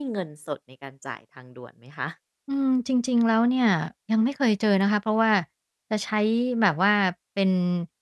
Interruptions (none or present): none